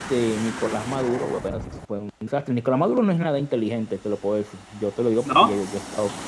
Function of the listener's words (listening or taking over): listening